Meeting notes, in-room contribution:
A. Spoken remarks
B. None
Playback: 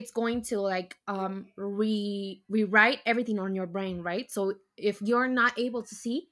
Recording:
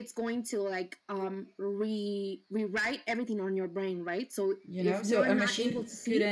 A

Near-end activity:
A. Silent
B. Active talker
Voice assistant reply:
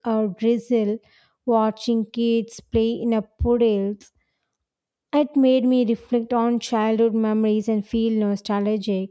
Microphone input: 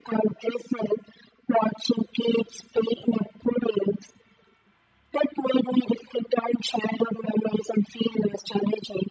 A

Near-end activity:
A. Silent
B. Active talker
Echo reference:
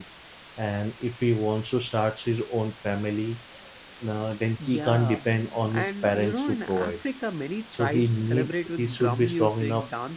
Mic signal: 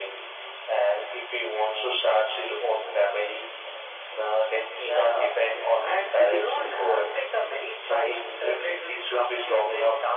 B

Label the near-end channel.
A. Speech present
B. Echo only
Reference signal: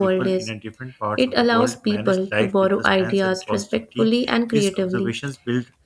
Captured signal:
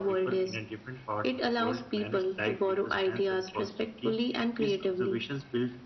B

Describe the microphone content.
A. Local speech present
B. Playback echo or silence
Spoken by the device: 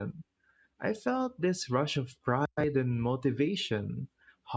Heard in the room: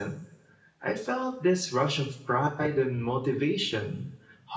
B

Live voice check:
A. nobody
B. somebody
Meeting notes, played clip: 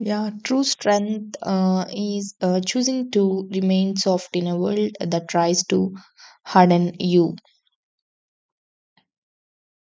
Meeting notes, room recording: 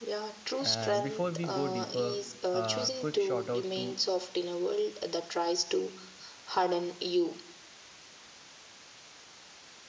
B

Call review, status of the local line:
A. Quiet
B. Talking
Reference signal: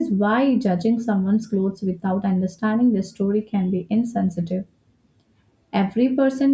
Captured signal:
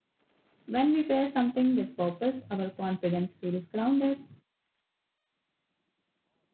B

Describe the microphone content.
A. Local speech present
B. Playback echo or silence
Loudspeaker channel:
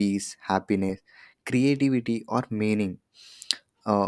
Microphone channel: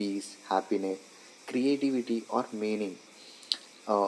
B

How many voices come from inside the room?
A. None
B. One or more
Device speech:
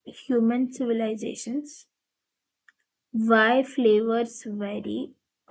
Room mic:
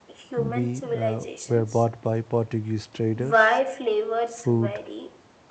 B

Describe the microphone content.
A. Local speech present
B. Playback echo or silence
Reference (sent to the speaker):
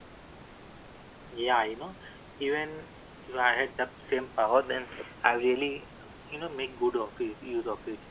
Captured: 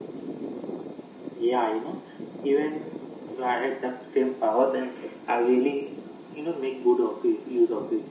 B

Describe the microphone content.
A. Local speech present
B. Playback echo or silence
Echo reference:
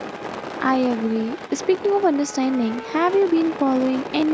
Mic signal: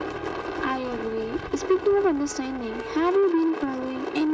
B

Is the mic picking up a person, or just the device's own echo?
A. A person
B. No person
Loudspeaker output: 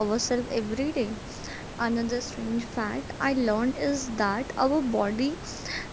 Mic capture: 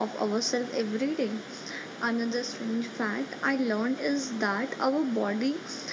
B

